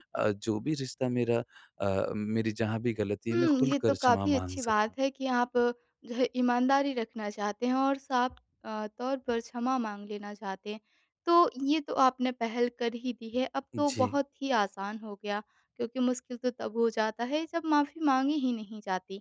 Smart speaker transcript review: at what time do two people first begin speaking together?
3.3 s

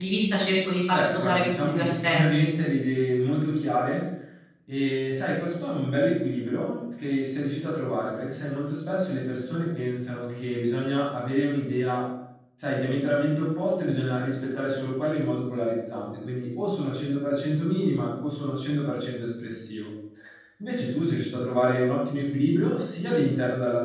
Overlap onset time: 0.9 s

